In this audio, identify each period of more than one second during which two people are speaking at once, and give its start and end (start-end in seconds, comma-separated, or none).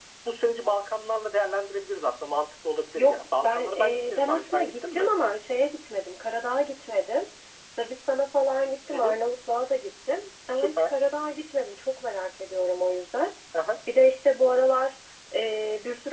3.0-5.1